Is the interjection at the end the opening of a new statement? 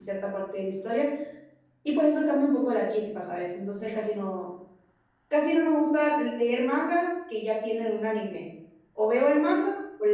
No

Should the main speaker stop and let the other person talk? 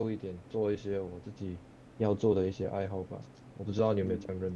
Yes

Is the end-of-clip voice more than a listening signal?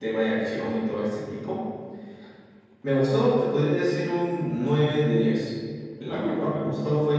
No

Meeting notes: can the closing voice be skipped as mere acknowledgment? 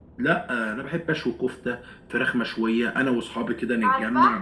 Yes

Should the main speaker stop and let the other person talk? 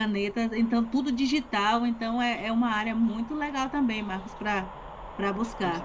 Yes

